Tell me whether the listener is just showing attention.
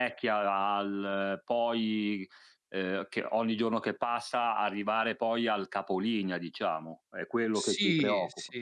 No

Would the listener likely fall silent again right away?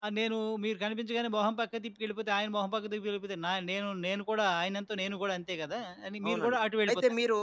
No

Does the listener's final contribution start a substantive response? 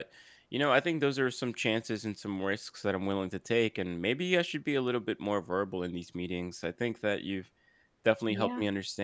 No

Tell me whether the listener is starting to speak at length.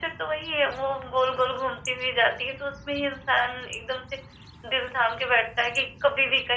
No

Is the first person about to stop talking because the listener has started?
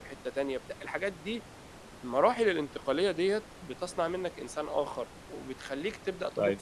No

